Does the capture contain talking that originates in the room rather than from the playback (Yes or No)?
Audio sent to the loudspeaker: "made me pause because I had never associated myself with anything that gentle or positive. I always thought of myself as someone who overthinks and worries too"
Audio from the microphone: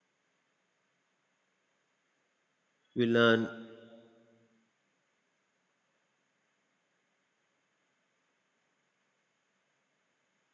Yes